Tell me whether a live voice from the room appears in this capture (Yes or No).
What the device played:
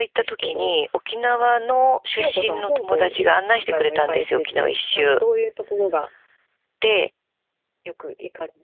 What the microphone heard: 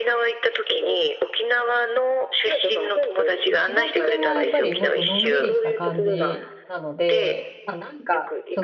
Yes